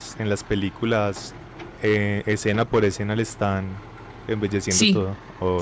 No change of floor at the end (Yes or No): No